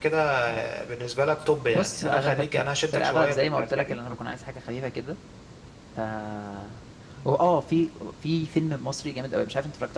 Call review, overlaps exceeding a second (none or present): present